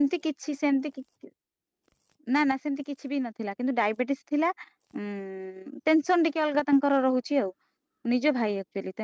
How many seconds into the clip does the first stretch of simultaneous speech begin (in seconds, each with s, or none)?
none